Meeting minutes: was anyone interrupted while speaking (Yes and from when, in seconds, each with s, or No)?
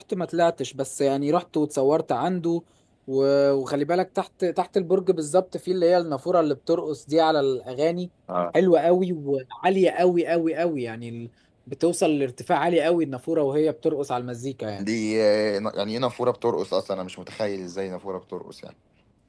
No